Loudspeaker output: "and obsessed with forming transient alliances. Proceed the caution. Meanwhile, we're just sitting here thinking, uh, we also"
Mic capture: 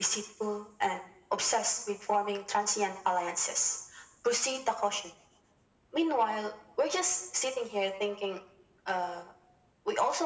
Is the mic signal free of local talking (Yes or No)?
Yes